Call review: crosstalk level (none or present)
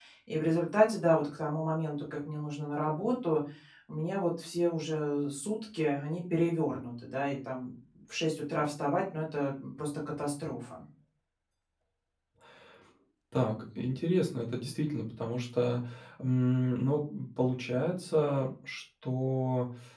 none